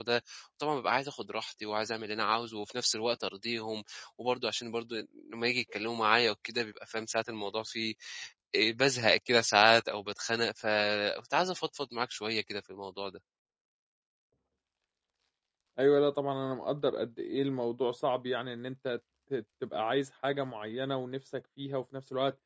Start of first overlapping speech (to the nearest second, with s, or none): none